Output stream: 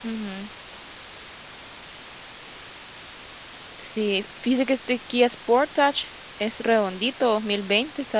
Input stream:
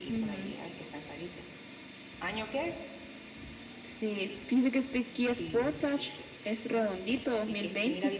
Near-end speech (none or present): present